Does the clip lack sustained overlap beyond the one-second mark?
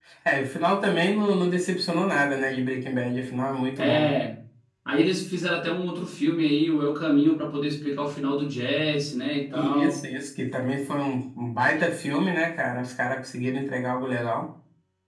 Yes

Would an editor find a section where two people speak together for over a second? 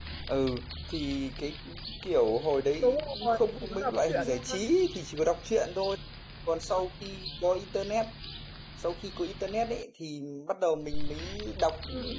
Yes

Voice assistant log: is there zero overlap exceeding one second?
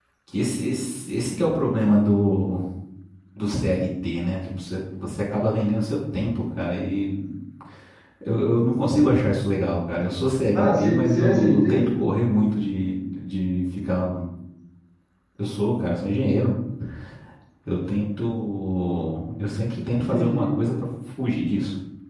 No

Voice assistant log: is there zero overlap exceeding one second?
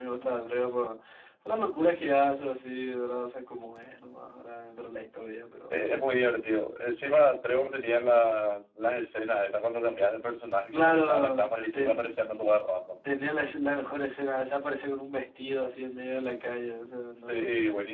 No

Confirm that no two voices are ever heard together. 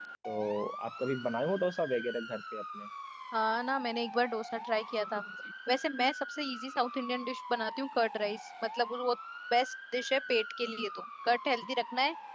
Yes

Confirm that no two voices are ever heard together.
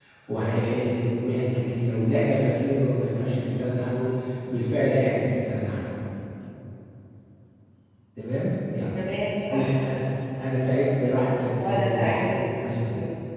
No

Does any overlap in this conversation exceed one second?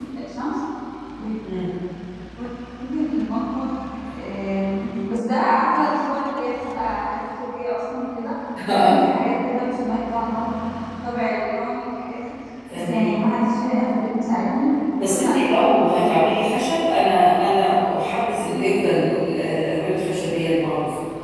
Yes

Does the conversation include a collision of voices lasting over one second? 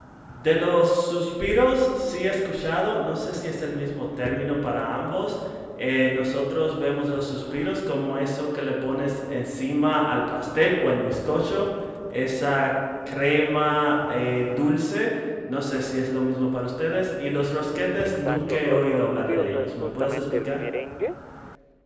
Yes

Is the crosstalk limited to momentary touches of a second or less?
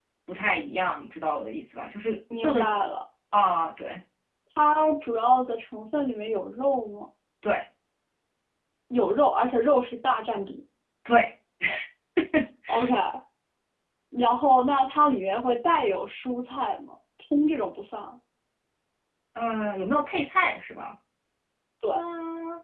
Yes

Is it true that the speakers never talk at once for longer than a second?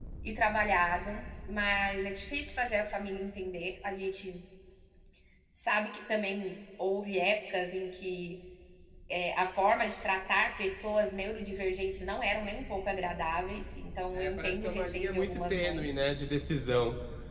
No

